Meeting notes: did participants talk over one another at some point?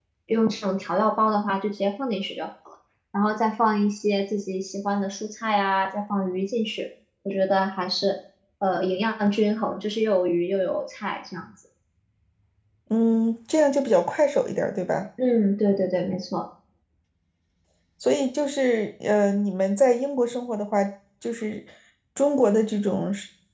No

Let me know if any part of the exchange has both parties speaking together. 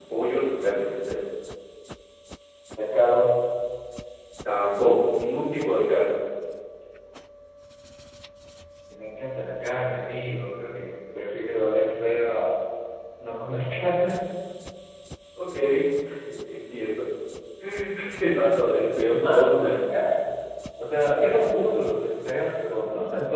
Yes, from 18.6 s

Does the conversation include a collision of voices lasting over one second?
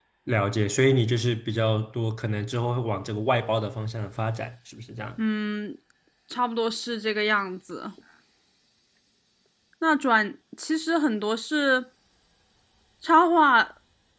No

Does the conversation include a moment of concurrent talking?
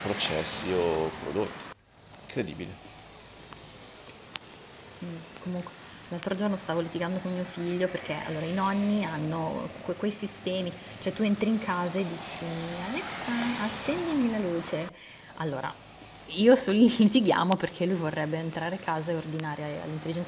No

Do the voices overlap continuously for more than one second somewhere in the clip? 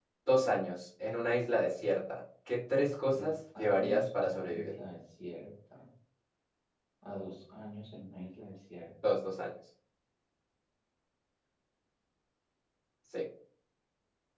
Yes, from 3.1 s

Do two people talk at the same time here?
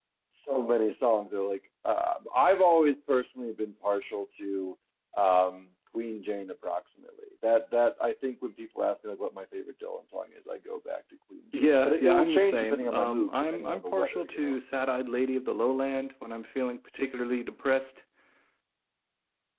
Yes, from 11.5 s

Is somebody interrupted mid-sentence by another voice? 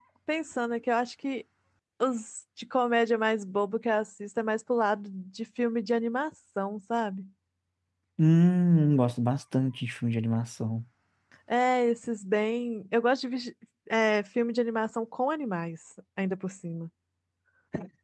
No

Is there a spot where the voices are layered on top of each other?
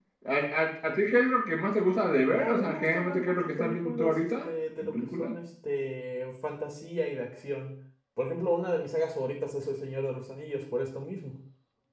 Yes, from 2.3 s

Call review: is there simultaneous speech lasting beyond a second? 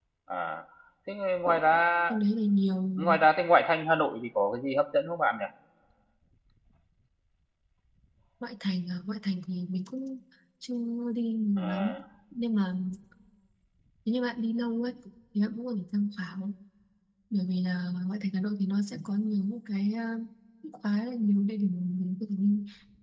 No

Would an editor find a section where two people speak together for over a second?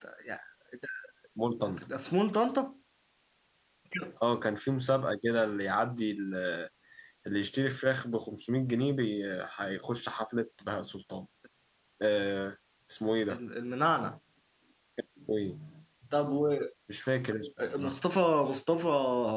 No

